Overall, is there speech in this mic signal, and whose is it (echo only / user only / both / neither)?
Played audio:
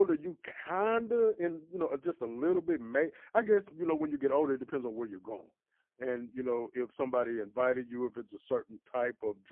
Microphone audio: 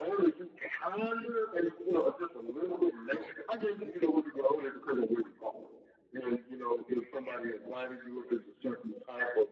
echo only